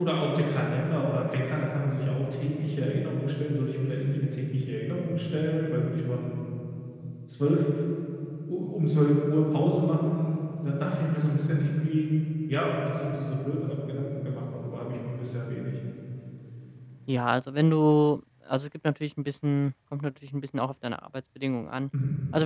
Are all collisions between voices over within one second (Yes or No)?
Yes